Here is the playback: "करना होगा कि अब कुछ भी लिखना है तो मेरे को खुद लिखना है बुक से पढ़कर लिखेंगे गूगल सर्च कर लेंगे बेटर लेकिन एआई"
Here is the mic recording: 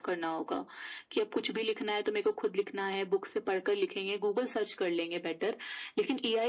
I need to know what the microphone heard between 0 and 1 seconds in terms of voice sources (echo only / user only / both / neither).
echo only